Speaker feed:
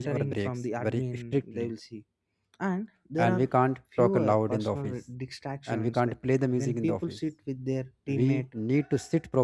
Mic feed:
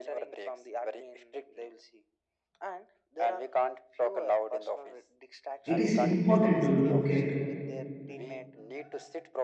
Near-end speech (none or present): present